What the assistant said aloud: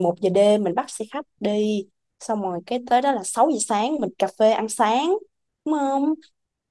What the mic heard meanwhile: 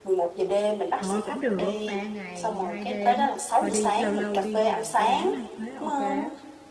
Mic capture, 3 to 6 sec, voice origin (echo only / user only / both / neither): both